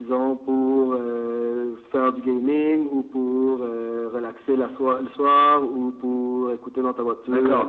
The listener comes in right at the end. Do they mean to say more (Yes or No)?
Yes